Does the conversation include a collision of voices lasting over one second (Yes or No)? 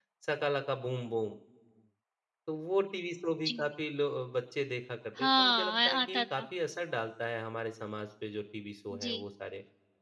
Yes